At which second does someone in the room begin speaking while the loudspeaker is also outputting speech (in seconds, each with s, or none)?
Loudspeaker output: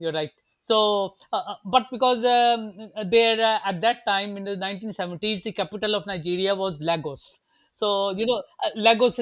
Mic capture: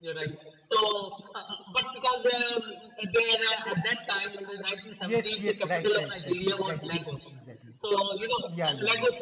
5.0 s